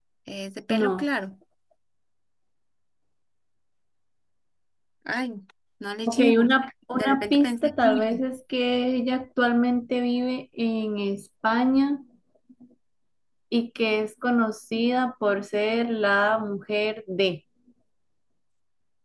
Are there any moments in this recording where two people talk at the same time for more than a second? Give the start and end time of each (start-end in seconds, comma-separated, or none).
6.9-8.3